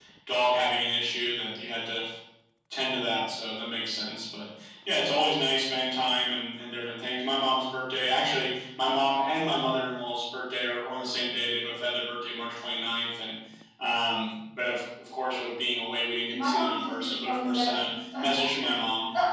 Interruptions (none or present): present